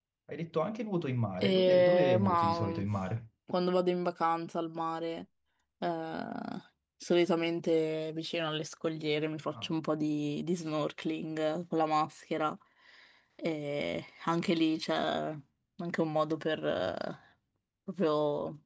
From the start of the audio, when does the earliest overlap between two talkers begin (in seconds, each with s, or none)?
1.4 s